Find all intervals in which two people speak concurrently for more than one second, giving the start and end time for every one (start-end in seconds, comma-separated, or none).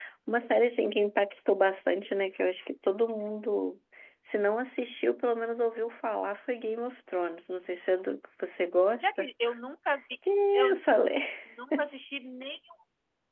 none